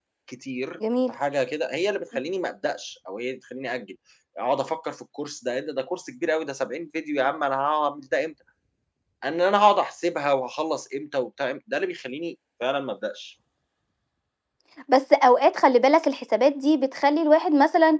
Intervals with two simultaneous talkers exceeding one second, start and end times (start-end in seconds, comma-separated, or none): none